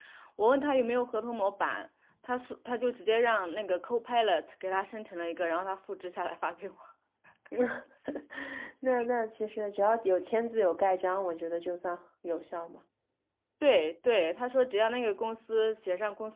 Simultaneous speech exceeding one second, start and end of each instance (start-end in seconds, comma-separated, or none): none